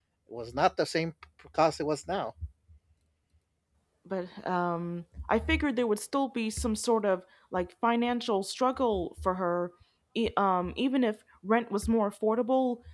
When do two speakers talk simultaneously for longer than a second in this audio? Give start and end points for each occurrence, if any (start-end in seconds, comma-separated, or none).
none